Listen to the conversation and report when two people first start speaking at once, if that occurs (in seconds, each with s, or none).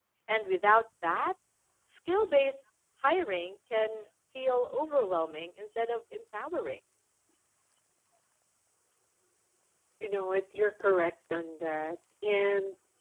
none